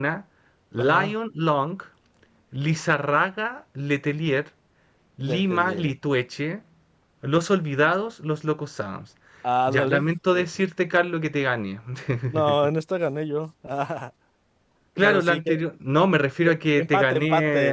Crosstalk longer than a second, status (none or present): present